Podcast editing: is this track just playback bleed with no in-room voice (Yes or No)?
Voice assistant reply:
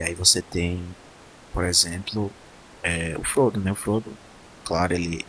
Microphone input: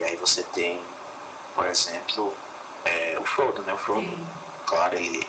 No